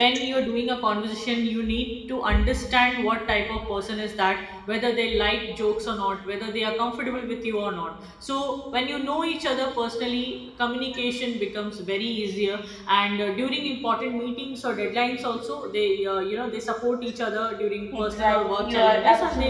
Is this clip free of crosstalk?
No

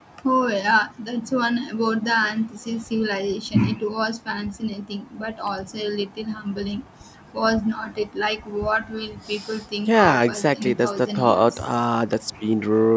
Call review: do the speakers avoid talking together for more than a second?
No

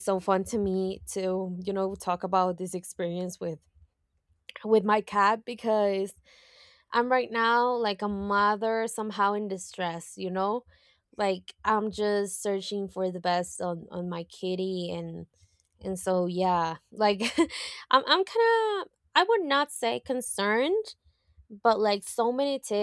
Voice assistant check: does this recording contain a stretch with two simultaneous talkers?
No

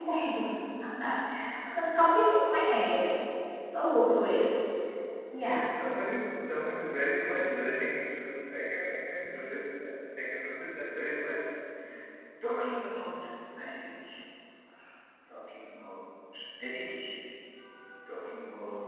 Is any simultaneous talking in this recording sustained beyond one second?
No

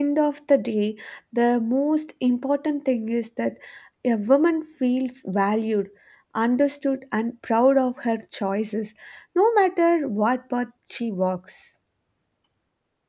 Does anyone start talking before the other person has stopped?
No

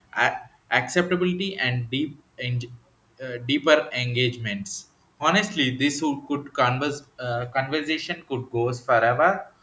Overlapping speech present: No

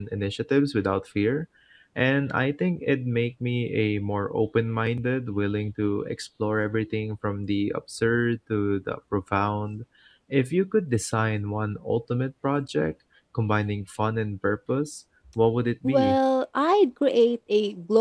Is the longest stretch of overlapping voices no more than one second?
Yes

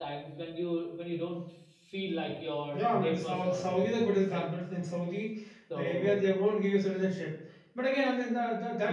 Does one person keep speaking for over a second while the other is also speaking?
Yes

